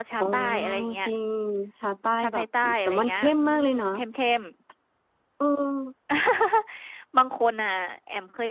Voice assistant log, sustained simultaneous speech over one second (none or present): present